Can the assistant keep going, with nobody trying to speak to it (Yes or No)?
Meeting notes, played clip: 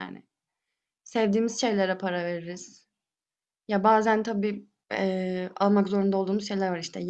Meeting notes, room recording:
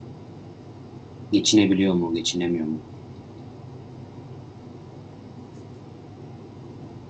No